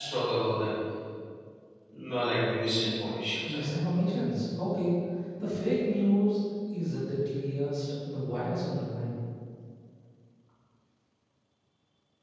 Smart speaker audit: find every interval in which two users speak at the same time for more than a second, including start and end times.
none

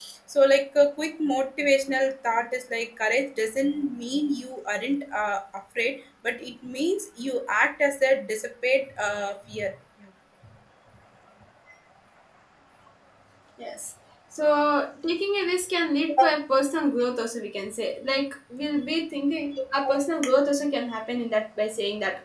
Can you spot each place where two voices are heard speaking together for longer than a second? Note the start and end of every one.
none

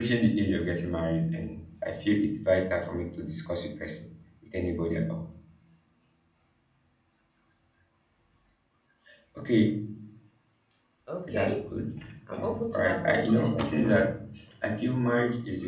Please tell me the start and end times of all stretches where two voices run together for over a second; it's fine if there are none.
12.3-13.7

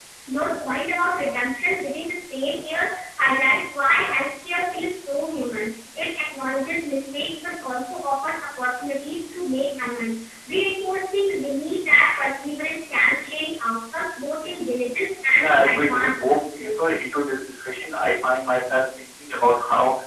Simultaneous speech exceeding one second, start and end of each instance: 15.4-16.7

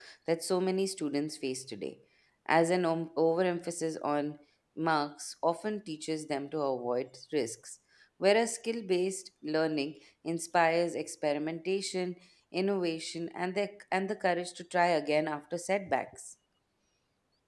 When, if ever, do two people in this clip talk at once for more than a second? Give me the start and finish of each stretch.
none

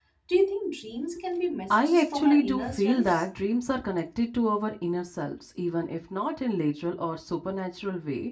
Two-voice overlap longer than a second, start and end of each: 1.7-3.2

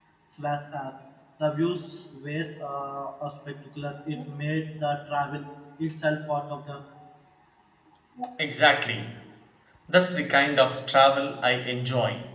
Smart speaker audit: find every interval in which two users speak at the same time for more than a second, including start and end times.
none

